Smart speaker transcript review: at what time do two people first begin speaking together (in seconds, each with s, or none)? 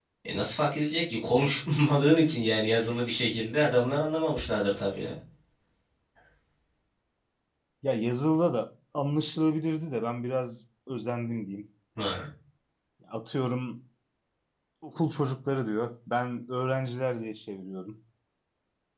none